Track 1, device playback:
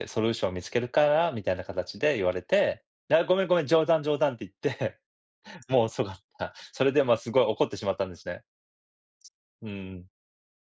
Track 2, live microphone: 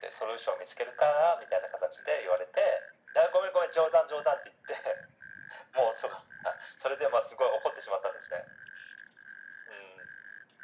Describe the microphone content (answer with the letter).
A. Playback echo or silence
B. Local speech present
A